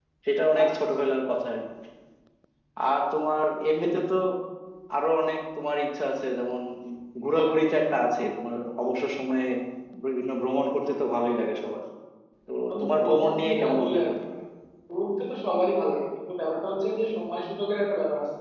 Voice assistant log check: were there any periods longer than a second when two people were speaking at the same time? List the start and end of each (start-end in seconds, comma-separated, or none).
12.7-14.1